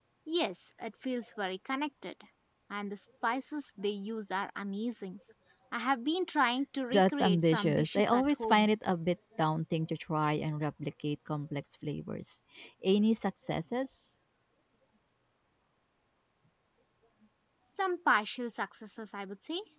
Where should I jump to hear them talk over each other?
6.9 s

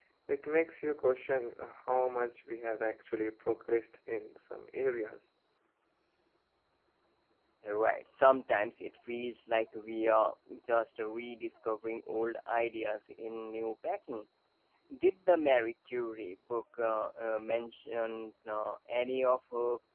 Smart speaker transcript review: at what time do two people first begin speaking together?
none

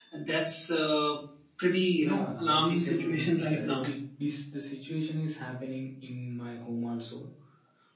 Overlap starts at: 2.0 s

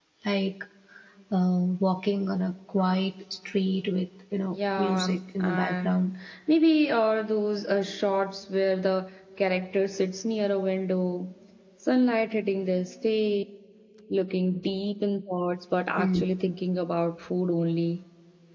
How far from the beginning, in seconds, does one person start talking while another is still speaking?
4.5 s

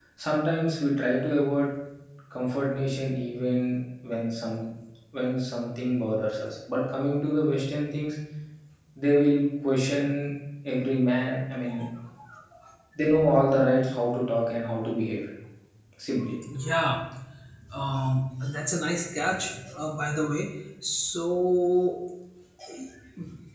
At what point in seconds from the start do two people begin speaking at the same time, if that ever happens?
none

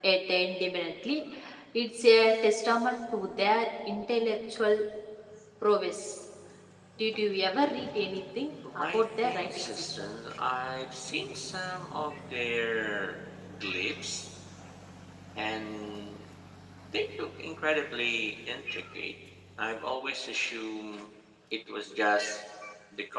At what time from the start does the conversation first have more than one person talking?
8.6 s

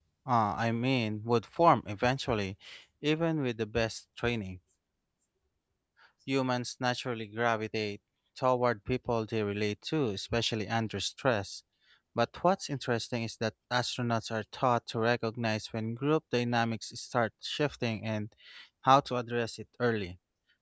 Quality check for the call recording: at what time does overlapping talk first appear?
none

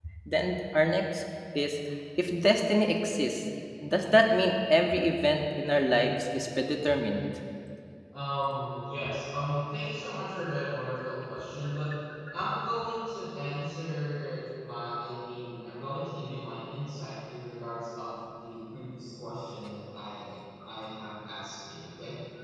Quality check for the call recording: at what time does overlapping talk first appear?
none

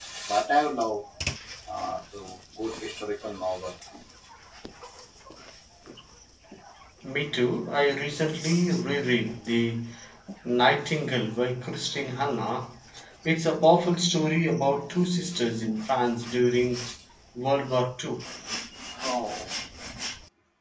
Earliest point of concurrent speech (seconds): none

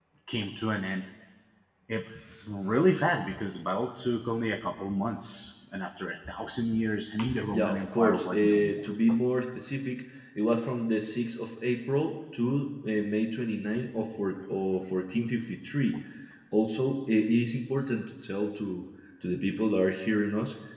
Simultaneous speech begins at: 7.5 s

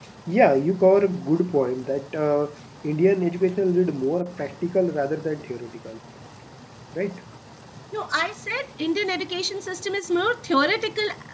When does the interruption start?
none

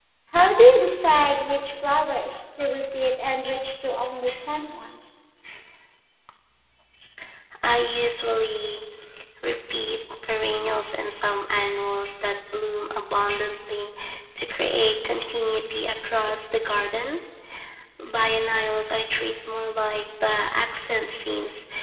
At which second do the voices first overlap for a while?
none

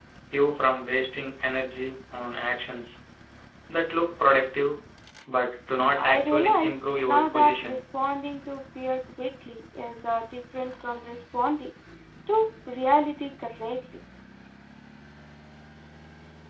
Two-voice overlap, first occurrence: 6.0 s

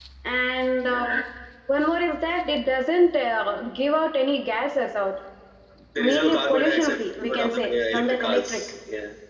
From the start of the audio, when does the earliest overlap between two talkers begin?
6.0 s

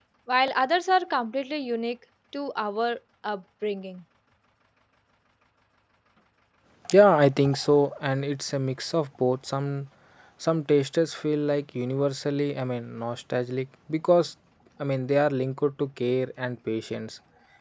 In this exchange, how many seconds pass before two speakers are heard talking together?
none

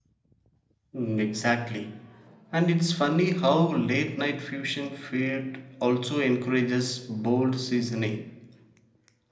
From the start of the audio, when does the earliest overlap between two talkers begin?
none

